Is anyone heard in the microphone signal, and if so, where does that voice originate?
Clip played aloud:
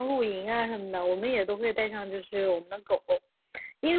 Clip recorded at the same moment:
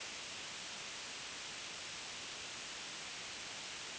neither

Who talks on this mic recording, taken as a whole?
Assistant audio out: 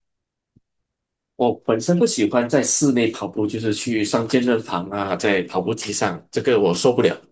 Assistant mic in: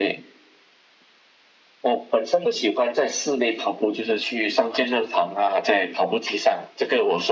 echo only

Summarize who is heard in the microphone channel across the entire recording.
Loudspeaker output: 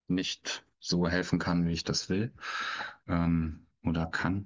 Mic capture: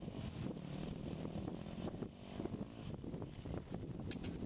neither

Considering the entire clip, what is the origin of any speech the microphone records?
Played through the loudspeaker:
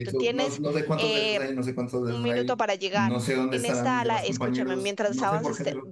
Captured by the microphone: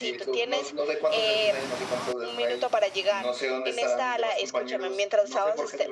echo only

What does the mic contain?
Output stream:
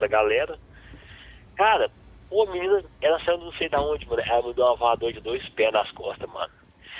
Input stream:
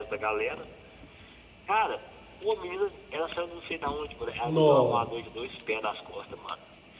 both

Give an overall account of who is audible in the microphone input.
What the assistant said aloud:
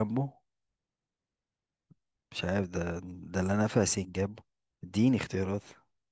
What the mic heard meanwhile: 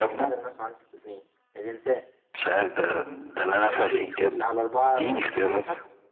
both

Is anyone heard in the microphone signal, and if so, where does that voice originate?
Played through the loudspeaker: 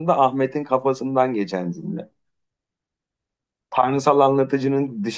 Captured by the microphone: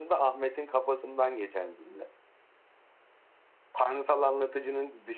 echo only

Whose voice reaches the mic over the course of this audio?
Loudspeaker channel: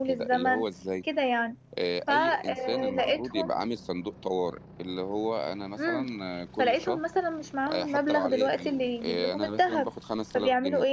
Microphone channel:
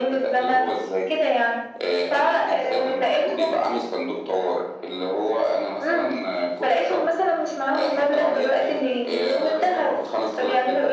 echo only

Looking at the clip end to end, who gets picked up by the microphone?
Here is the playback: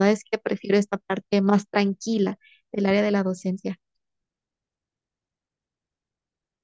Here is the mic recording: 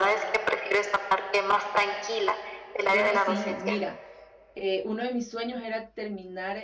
both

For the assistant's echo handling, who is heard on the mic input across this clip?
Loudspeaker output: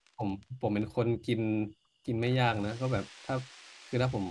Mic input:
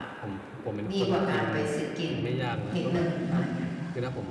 both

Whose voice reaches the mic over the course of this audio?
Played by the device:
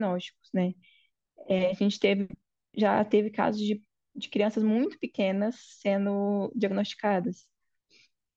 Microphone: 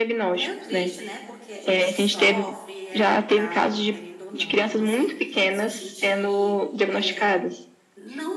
both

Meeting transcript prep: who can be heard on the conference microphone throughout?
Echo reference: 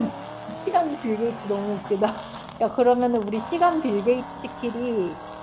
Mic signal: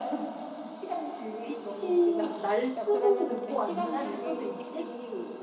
both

